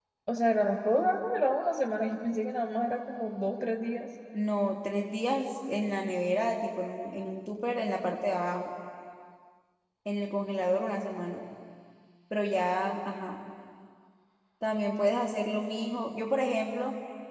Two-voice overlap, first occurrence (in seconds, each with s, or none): none